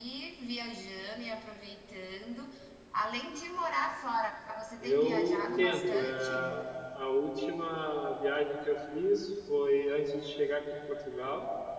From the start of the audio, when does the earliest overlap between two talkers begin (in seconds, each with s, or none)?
4.8 s